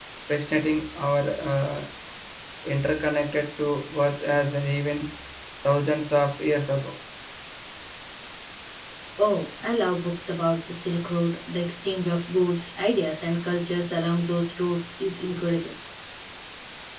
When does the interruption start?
none

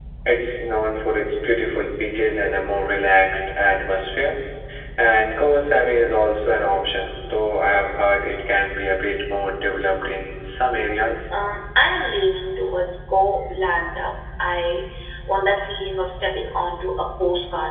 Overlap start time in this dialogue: none

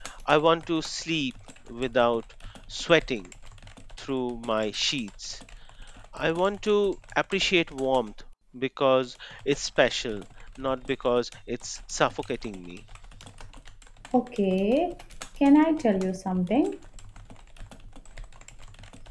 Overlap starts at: none

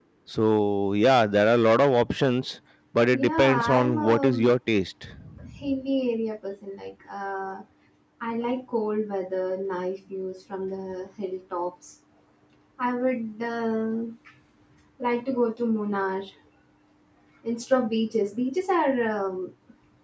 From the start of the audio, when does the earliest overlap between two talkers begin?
3 s

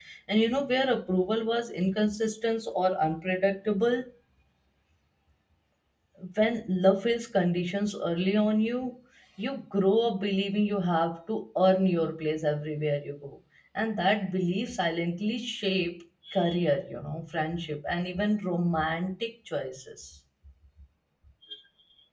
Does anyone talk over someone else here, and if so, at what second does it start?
none

